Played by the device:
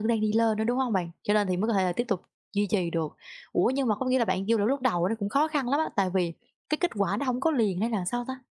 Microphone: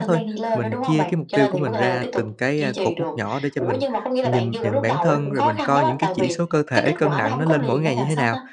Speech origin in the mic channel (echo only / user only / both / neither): both